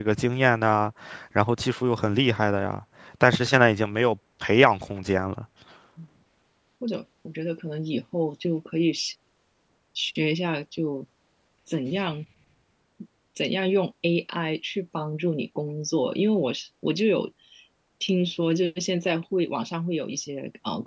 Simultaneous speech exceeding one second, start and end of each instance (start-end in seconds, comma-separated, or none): none